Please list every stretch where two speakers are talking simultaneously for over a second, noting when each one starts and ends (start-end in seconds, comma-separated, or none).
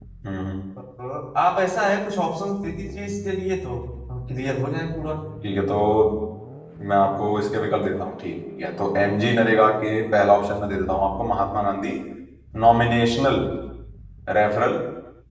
none